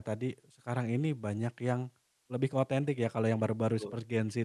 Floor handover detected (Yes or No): No